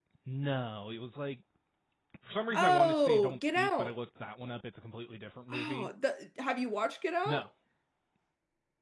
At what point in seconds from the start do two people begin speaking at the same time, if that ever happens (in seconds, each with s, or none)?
2.5 s